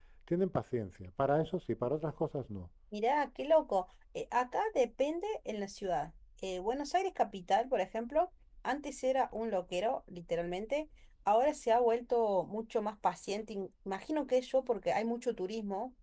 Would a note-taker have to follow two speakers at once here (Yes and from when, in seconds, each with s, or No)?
No